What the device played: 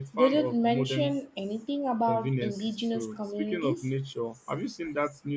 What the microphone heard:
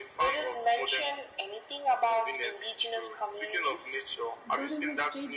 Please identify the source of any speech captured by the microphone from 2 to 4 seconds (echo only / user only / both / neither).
echo only